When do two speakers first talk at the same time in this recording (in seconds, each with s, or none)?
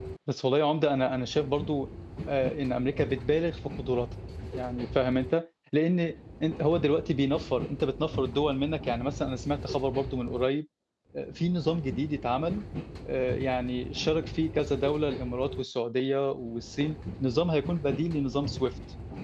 none